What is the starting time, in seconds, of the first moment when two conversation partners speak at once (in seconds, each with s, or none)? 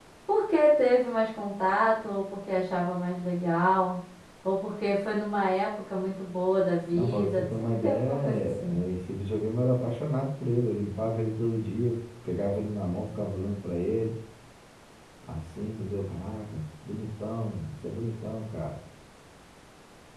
6.9 s